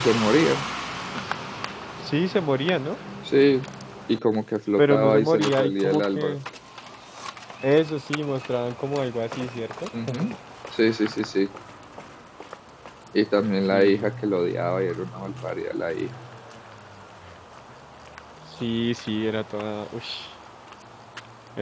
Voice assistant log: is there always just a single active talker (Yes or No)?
No